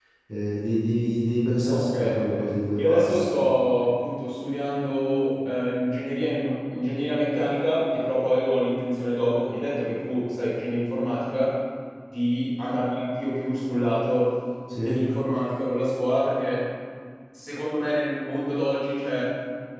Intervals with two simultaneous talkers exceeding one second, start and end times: 1.7-3.3

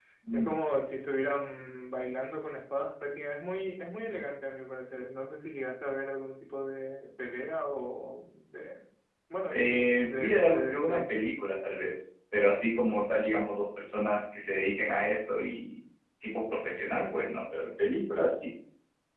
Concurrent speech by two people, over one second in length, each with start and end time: 9.5-11.2

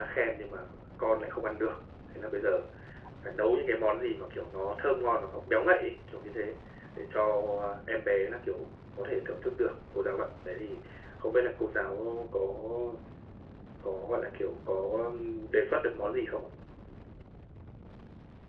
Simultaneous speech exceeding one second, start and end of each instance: none

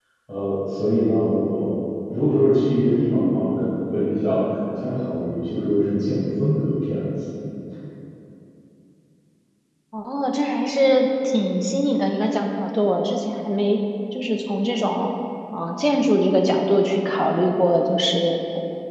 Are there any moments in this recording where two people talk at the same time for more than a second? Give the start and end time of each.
none

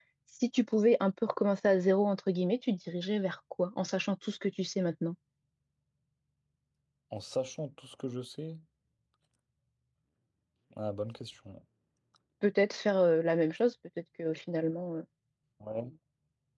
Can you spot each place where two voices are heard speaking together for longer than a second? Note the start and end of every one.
none

